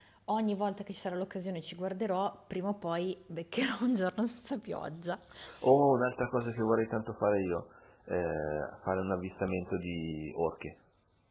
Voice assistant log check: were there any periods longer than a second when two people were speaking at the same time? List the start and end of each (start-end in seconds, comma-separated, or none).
none